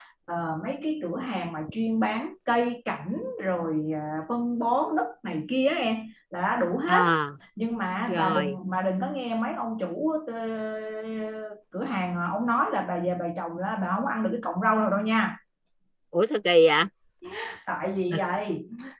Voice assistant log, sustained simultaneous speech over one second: none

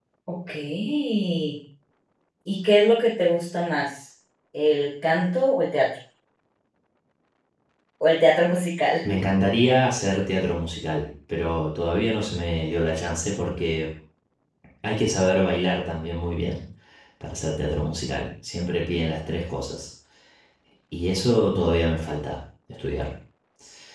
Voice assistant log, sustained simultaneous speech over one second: none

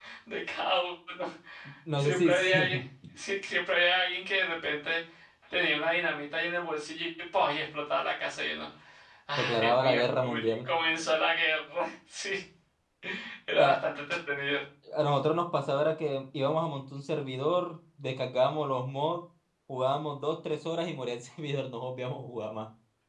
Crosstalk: present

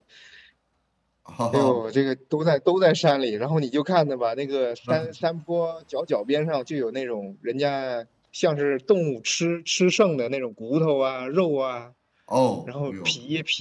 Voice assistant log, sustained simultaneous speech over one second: none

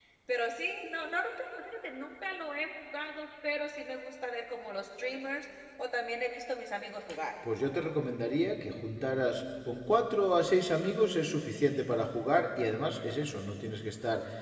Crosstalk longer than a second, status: none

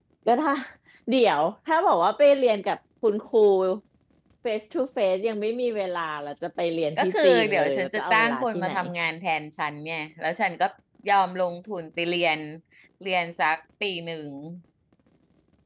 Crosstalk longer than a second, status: present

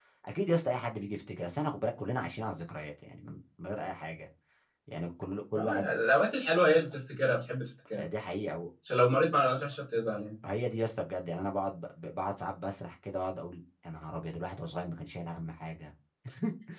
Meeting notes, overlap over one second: none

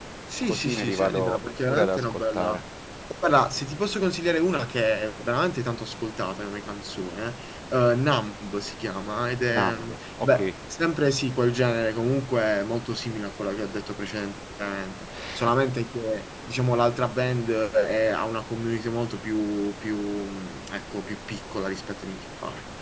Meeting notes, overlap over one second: present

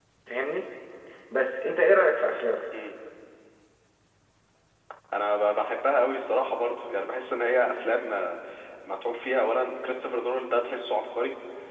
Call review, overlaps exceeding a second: none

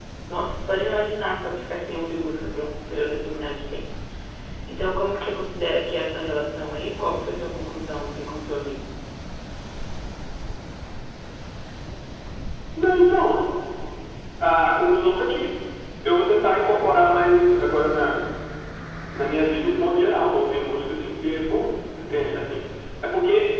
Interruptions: none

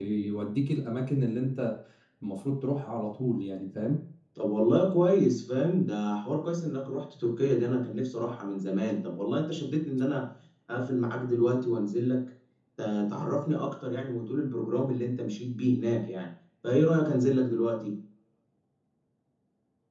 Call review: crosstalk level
none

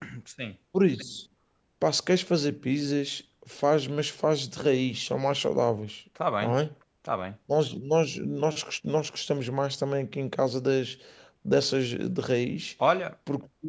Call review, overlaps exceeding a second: none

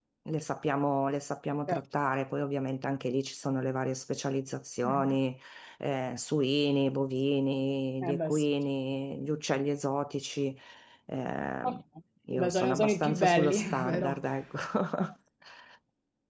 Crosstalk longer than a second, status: present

